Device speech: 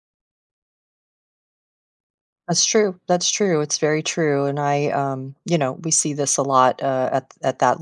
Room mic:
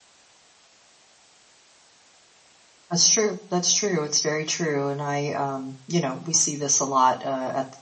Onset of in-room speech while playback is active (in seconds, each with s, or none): none